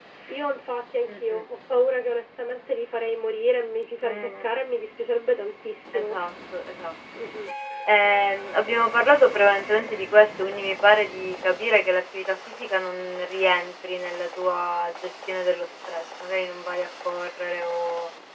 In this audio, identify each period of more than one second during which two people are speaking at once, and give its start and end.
none

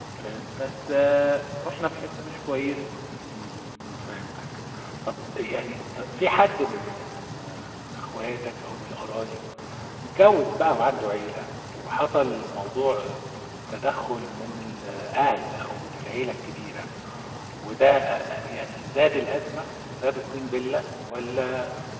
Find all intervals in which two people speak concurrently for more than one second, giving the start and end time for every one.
none

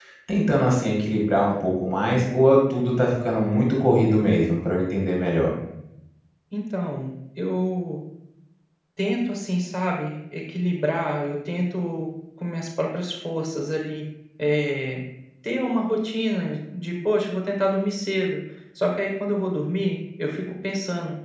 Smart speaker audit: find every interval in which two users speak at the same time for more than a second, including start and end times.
none

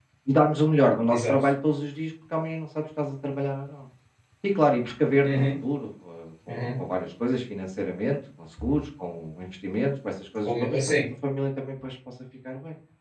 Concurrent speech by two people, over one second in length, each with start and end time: none

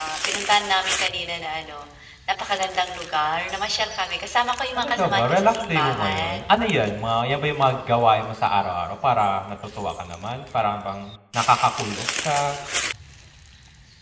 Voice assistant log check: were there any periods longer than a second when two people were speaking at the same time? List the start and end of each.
4.8-6.4

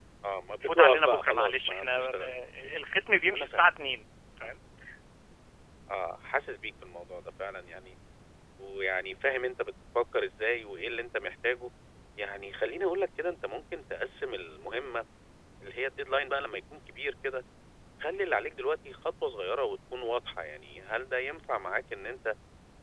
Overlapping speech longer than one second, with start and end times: 0.6-2.2

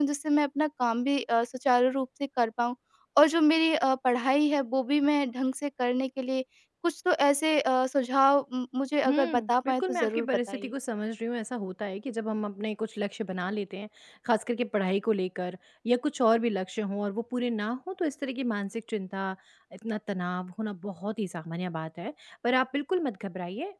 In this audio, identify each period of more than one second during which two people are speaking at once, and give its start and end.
9.1-10.7

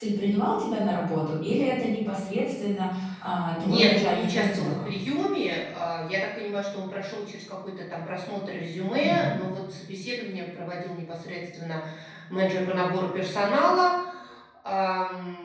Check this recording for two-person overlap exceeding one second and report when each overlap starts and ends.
3.6-4.9

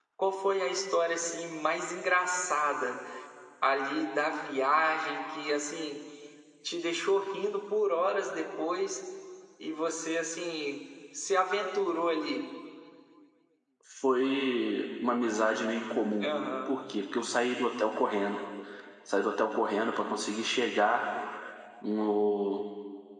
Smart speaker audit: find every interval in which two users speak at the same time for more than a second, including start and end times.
none

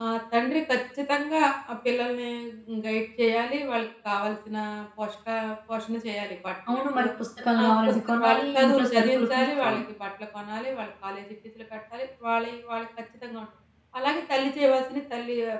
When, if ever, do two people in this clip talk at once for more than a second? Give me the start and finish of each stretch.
7.6-9.8

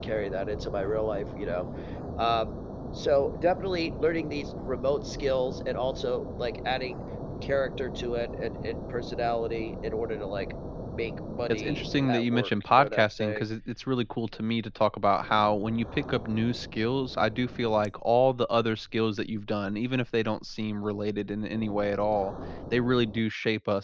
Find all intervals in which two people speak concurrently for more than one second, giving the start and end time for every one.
11.5-13.4

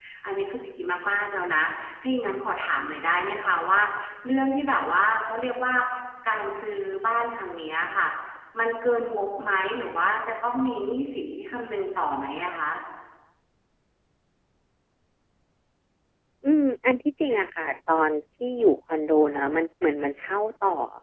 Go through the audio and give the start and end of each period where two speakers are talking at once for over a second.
none

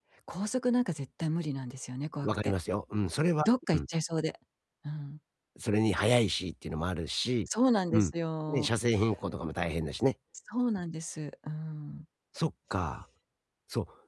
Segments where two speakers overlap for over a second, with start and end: none

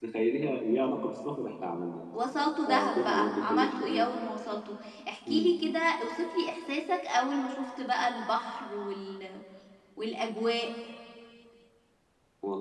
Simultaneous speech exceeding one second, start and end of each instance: 2.7-4.1

